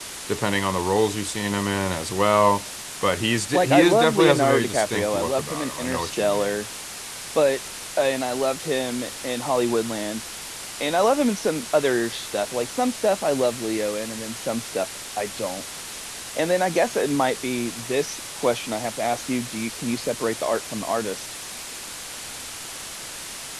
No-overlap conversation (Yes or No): No